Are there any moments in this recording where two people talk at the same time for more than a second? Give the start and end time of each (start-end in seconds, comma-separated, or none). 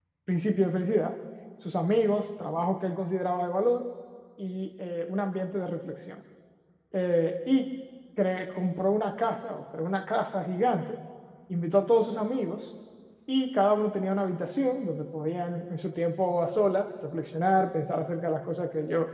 none